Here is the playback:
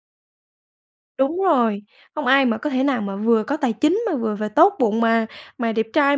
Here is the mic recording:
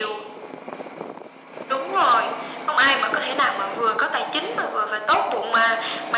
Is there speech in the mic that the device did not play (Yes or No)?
No